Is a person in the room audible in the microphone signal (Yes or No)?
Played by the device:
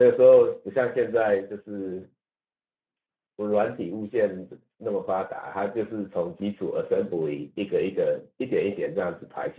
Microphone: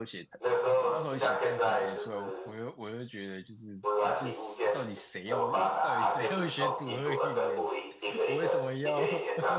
Yes